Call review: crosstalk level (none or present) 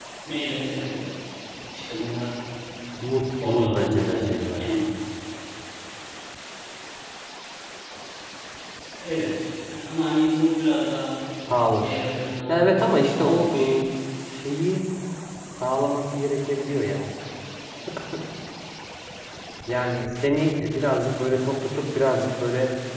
present